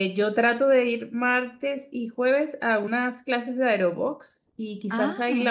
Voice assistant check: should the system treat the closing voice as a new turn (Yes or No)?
No